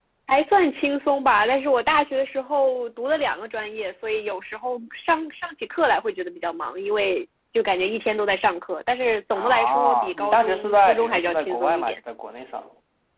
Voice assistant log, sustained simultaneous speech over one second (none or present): present